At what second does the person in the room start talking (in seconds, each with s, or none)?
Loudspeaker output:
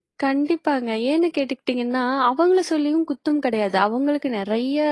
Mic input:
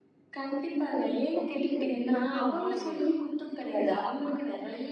2.1 s